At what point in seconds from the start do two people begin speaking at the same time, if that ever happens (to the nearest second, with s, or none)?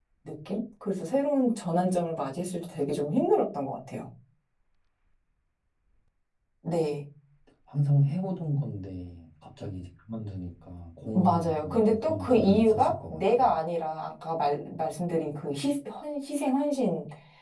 11 s